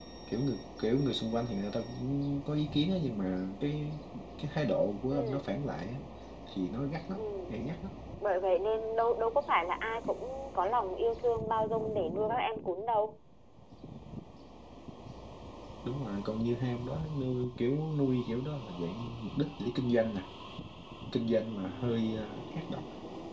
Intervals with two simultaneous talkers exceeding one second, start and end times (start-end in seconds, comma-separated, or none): none